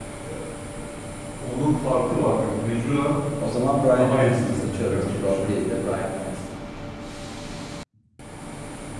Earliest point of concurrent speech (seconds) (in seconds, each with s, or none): 3.9 s